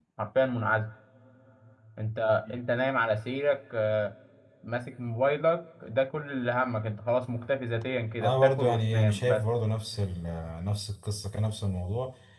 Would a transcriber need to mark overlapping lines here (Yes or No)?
Yes